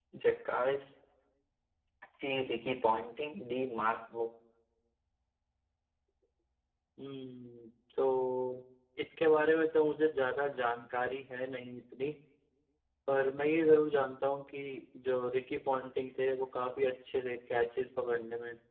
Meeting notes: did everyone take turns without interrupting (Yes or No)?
Yes